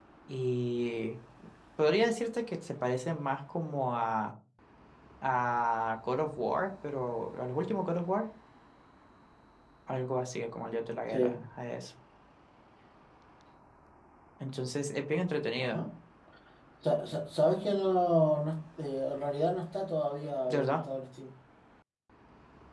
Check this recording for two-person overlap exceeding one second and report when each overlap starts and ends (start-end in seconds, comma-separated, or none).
none